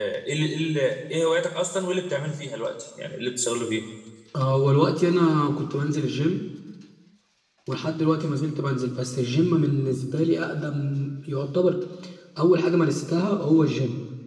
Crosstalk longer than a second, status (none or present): none